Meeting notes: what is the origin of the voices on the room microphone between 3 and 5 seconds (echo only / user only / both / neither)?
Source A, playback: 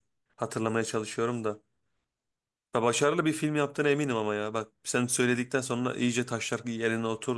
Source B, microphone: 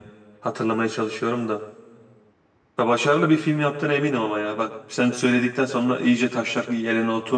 echo only